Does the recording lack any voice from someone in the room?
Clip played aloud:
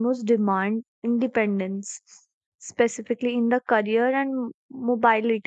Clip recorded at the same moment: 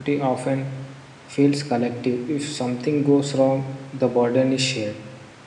No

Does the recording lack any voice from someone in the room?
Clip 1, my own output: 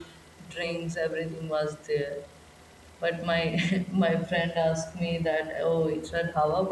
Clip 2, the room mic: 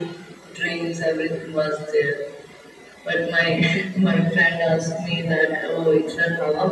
Yes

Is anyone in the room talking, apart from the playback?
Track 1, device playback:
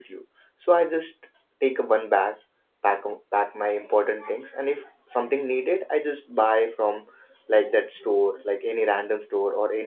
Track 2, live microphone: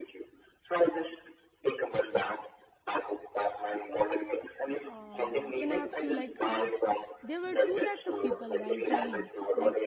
Yes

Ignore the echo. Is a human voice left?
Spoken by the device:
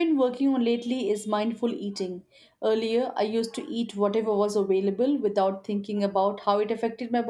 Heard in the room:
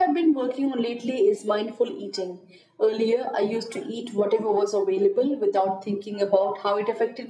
No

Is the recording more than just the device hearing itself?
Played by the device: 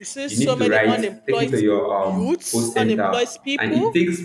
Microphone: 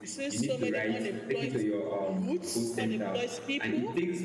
No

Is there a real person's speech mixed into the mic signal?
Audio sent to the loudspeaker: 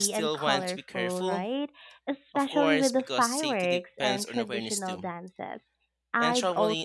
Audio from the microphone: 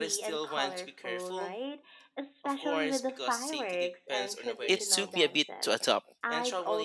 Yes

